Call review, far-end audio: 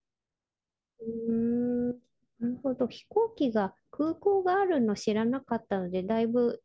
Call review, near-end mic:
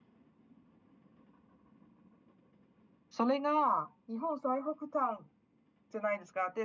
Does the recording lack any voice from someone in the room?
No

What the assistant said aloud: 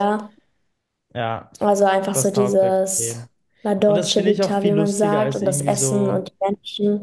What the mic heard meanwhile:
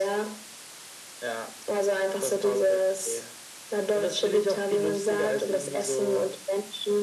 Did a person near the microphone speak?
No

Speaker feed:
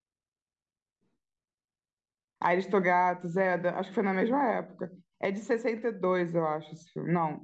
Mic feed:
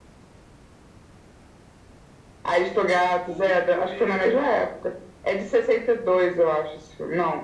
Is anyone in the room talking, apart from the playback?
Yes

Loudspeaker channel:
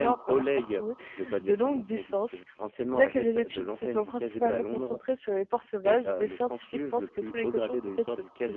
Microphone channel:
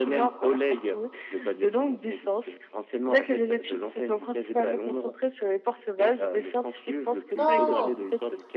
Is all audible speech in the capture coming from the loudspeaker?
No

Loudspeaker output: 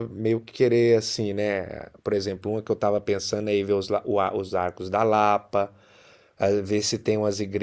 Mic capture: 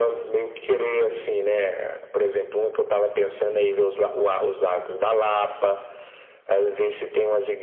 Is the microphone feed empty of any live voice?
Yes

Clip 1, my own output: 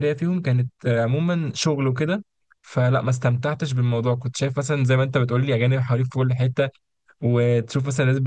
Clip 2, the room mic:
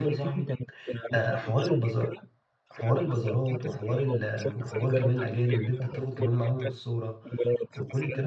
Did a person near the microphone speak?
Yes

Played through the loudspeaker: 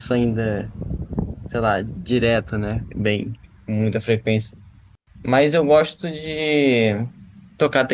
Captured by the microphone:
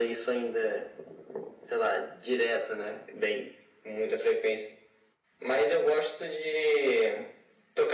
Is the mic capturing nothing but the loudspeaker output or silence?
Yes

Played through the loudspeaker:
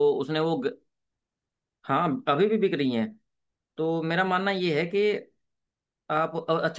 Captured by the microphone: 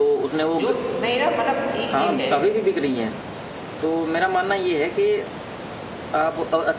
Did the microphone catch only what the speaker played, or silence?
No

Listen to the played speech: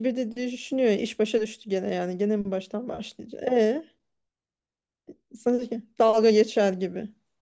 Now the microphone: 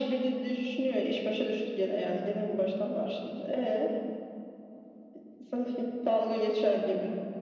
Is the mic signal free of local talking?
Yes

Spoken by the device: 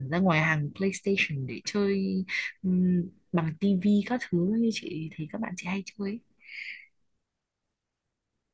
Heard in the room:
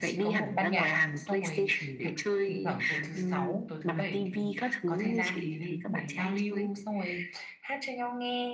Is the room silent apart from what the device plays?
No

